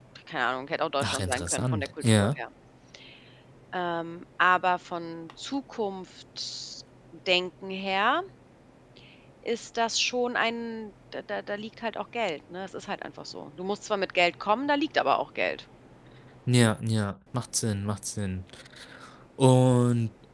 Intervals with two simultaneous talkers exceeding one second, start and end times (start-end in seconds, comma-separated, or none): 1.0-2.4